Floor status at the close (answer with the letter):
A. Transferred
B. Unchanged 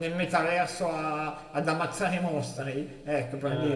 B